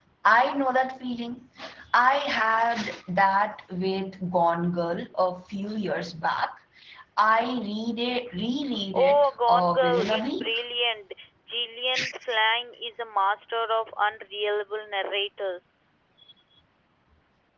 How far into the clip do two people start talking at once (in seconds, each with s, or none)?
8.9 s